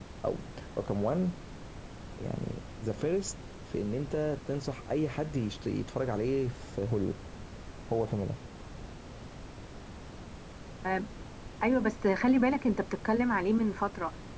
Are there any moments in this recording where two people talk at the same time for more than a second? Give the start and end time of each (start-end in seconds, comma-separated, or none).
none